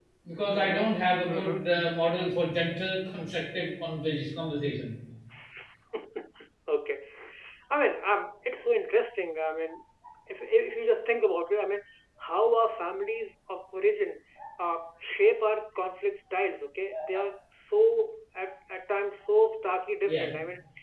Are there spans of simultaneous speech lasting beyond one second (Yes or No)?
Yes